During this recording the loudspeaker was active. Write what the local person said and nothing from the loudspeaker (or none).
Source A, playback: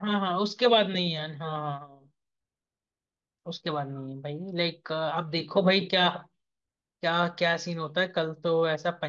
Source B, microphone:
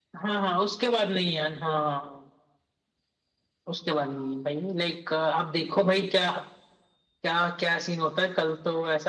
none